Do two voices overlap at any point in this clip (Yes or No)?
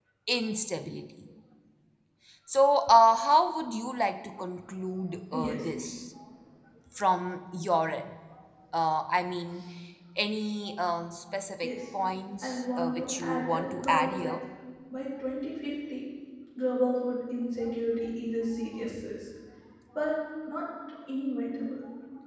Yes